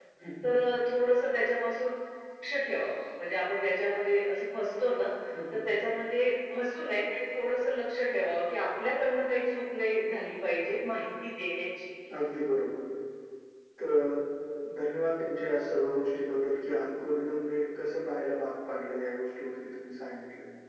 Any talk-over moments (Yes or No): No